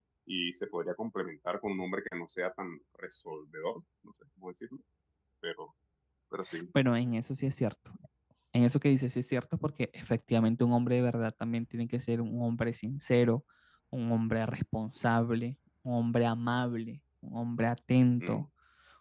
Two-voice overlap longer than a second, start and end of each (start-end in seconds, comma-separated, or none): none